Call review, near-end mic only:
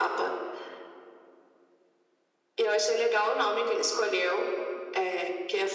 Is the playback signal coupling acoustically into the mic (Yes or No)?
Yes